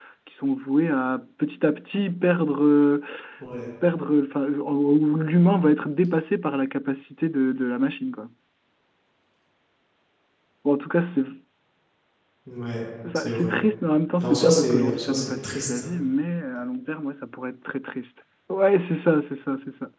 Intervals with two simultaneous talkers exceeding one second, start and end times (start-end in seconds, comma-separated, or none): 14.2-15.9